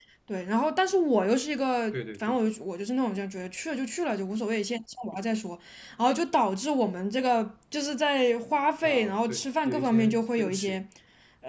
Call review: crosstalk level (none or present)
present